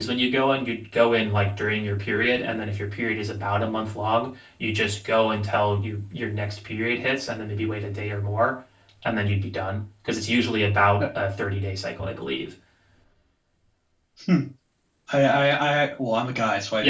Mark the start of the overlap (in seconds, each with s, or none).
none